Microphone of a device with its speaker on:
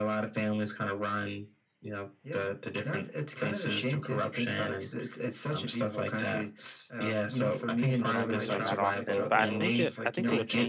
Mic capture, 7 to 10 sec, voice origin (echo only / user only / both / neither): both